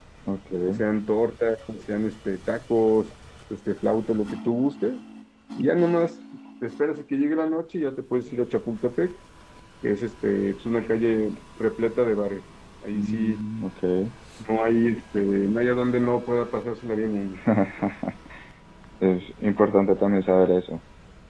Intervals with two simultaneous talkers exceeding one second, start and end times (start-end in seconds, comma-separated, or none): none